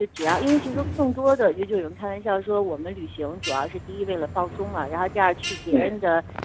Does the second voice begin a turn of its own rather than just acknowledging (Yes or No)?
No